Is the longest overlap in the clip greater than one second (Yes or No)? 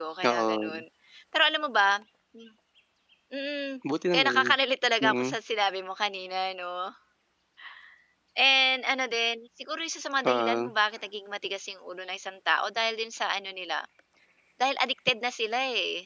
No